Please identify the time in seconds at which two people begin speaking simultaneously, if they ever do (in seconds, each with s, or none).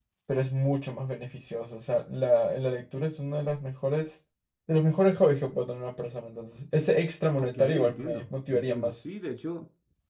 7.4 s